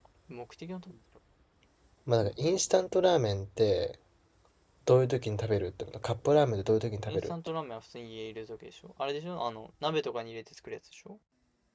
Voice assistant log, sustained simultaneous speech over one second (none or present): none